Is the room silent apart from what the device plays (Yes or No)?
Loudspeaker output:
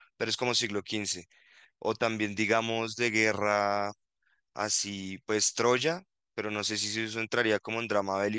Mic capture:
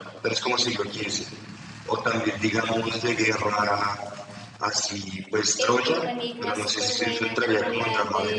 No